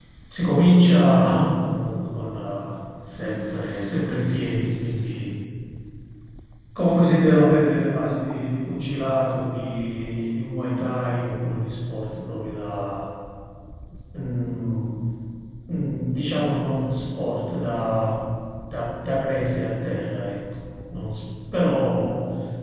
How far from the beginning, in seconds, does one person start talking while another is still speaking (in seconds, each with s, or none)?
none